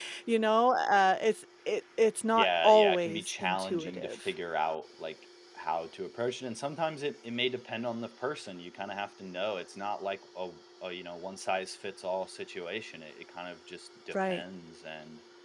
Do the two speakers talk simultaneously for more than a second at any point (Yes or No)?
Yes